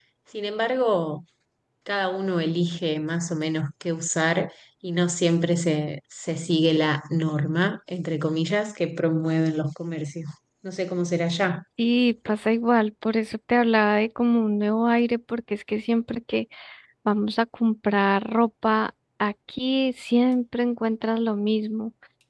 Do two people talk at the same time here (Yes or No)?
No